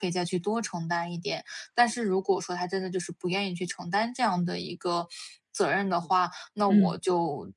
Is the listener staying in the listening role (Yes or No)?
Yes